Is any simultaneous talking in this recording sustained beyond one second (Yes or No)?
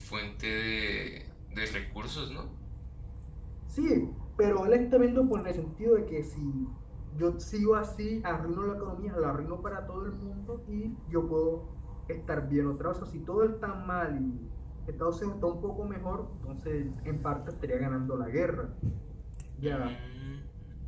No